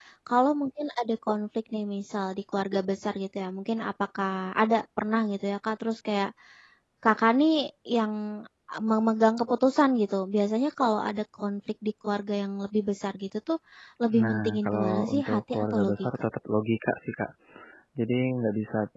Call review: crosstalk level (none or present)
present